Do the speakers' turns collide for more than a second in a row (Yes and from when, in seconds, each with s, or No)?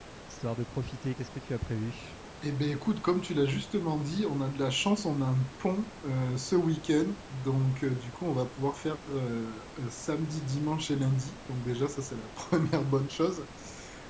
No